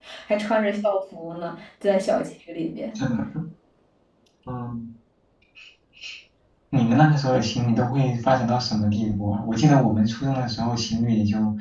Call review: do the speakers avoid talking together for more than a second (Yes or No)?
Yes